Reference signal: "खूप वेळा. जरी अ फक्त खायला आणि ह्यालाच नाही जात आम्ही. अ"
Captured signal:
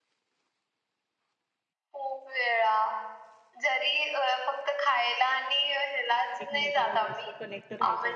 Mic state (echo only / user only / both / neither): both